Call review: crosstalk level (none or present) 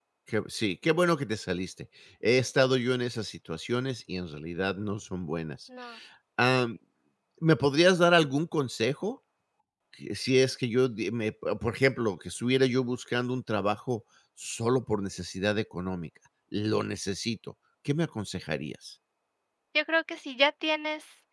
none